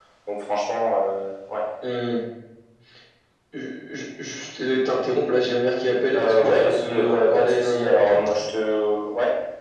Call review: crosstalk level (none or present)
present